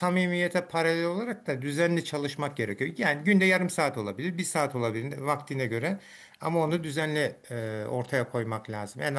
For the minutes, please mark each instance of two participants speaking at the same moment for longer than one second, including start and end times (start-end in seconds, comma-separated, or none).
none